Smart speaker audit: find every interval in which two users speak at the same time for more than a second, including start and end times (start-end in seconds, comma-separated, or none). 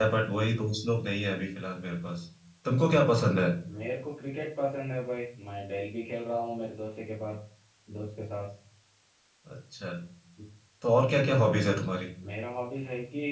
none